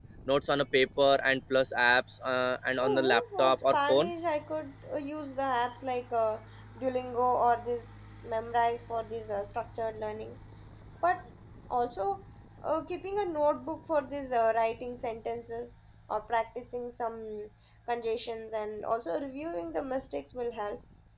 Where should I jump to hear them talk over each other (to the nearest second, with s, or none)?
3 s